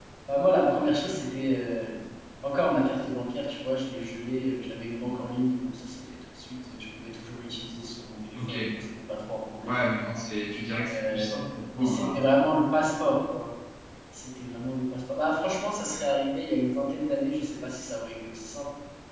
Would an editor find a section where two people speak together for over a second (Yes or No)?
No